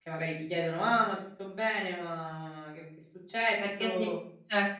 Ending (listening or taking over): taking over